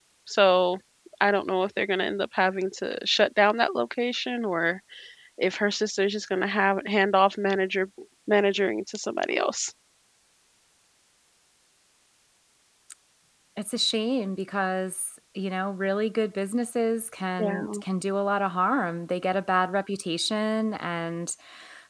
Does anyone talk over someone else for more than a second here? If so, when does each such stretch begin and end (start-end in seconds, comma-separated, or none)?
none